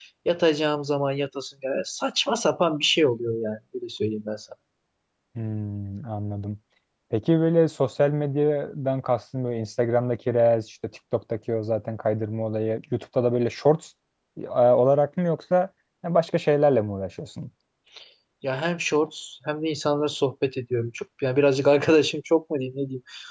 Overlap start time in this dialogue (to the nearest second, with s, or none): none